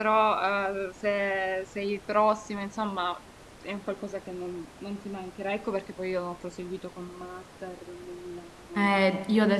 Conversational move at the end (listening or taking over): taking over